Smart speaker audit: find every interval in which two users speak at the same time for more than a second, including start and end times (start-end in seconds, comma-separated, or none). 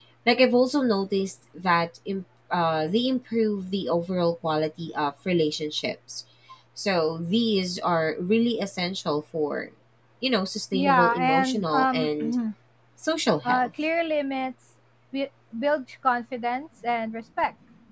10.7-12.1